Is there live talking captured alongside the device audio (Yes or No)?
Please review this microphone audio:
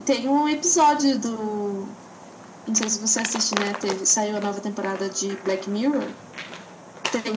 No